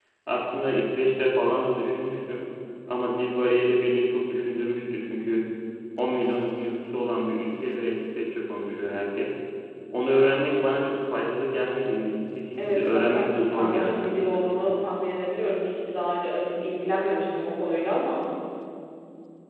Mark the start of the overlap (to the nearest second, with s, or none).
13 s